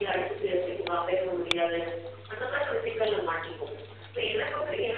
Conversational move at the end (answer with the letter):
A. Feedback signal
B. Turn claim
A